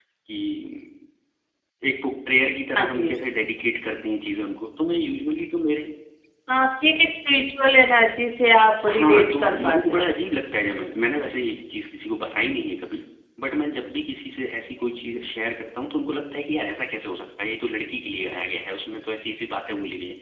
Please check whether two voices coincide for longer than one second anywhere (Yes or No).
Yes